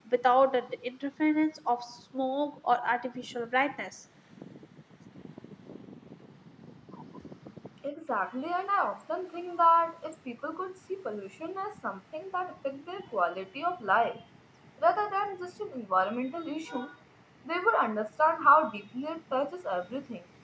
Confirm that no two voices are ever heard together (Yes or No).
Yes